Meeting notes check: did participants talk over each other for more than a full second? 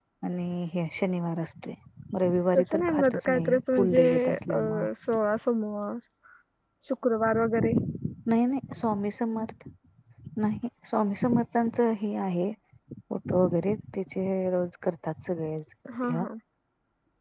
Yes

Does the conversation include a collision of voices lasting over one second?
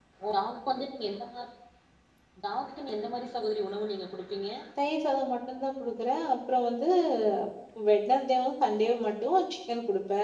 No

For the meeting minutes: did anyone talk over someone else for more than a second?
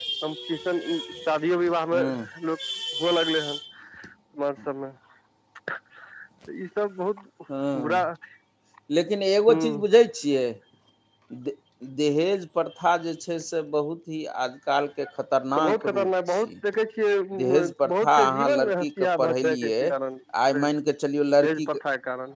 Yes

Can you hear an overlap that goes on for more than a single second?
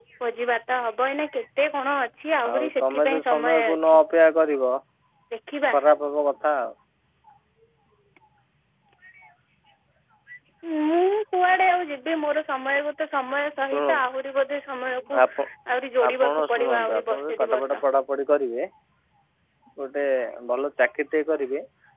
Yes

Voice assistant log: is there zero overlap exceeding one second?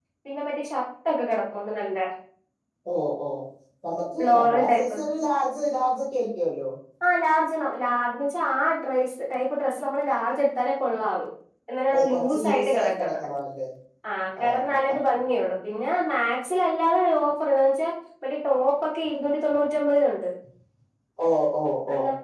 No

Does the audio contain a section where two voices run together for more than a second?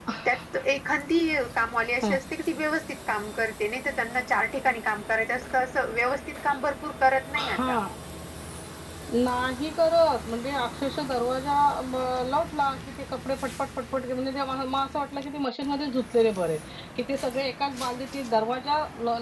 No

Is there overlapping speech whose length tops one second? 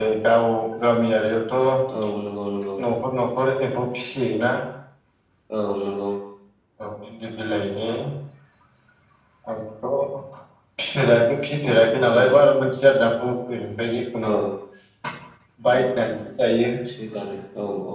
No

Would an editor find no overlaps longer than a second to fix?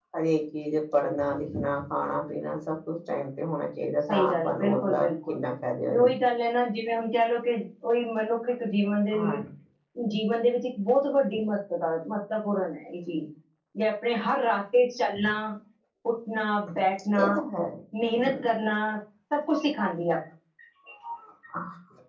No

